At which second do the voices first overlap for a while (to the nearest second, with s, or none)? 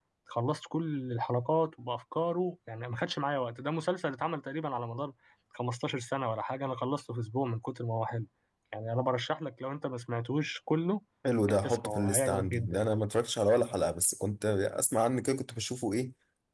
11 s